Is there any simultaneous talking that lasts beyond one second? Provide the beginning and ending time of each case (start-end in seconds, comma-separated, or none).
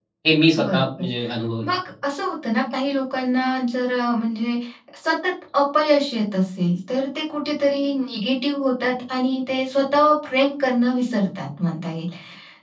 none